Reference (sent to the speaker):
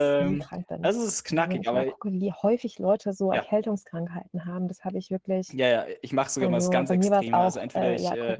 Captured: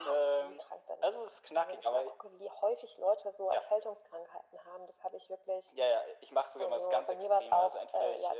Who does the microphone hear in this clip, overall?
echo only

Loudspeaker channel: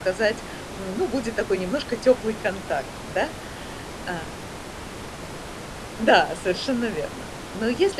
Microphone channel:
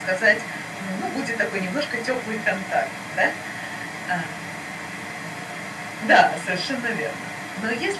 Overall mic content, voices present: echo only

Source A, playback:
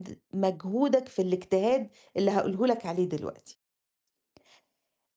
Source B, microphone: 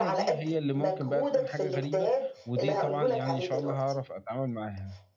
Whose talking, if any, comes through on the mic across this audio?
both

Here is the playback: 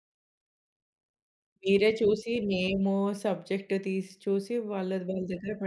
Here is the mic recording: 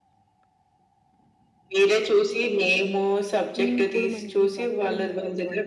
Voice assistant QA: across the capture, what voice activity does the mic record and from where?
both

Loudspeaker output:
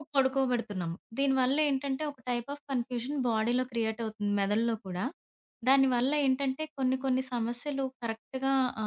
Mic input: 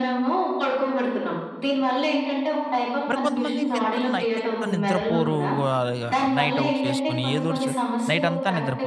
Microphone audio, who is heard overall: both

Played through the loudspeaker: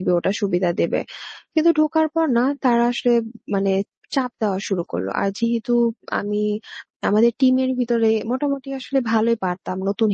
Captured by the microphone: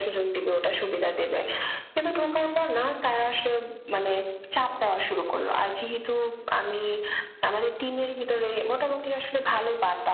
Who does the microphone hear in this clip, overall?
echo only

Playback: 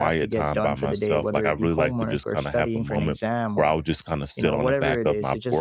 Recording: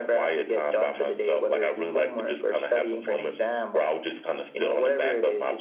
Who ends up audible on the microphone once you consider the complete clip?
echo only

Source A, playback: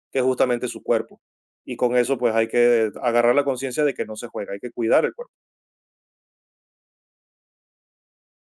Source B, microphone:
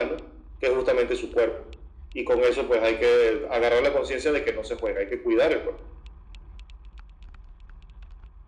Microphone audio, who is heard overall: echo only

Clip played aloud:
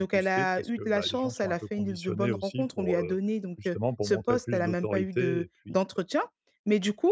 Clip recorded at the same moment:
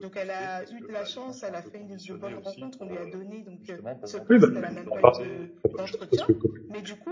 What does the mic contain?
both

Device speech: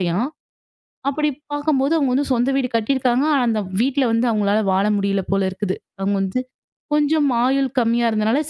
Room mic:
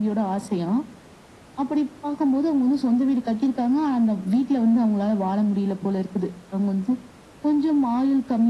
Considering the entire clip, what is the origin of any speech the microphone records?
echo only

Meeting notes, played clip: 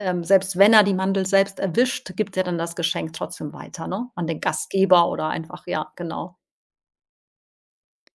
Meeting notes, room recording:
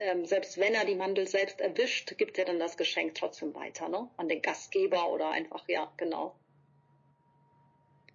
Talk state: echo only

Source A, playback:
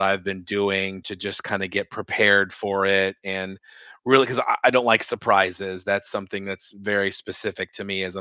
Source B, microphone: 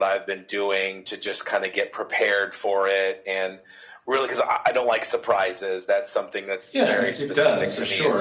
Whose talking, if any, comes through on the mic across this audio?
both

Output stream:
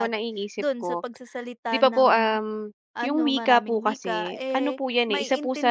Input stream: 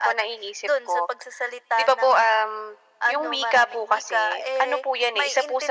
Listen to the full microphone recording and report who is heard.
echo only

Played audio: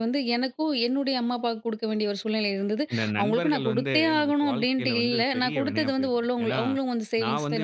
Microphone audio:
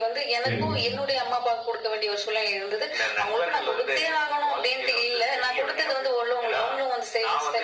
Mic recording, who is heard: both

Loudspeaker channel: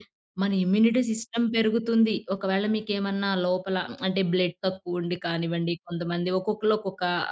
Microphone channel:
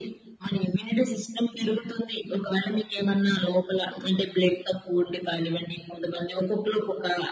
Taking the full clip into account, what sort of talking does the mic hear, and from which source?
echo only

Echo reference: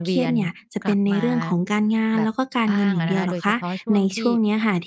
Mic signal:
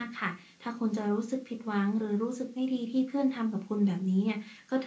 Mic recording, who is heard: user only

